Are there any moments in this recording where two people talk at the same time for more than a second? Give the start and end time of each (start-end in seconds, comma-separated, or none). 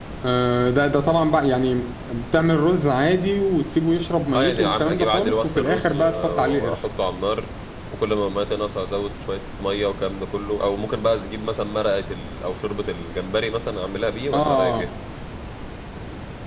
4.3-6.8